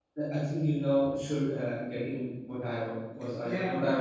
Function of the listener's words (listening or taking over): taking over